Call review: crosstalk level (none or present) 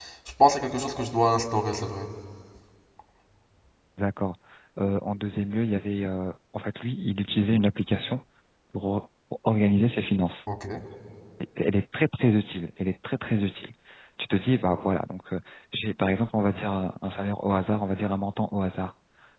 none